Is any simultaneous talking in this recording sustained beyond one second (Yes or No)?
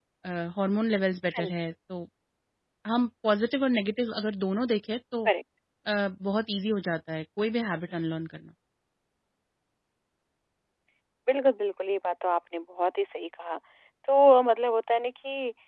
No